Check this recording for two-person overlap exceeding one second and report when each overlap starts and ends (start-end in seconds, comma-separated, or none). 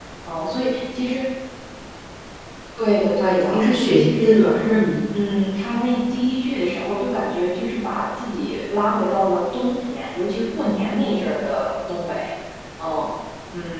3.2-4.8